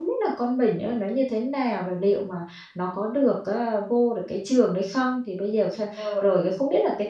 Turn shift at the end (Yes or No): No